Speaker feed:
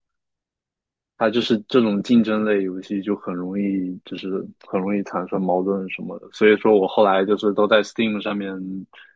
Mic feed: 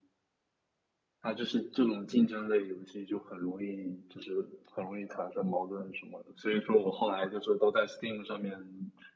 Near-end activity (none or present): none